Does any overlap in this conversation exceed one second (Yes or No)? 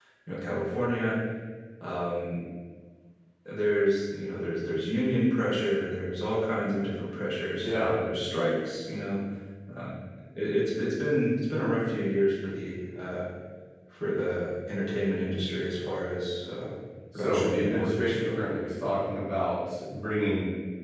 Yes